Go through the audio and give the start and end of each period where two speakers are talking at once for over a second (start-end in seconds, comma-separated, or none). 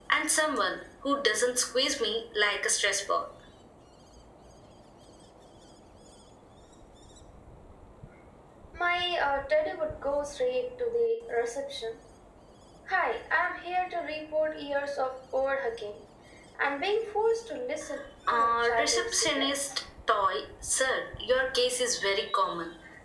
18.3-19.8